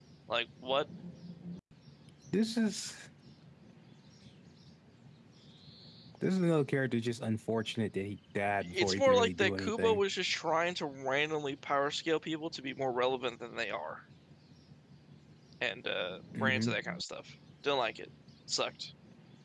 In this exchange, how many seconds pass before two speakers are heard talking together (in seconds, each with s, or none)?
8.6 s